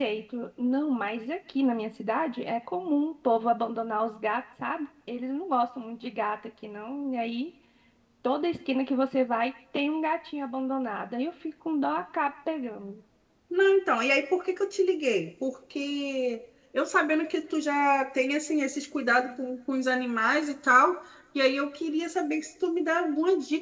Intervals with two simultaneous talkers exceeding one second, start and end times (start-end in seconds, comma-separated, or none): none